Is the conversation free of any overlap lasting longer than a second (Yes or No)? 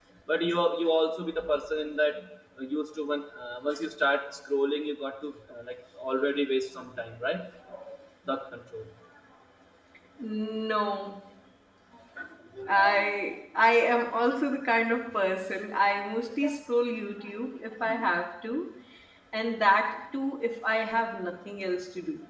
Yes